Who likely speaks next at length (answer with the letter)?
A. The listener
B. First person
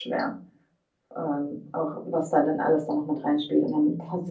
B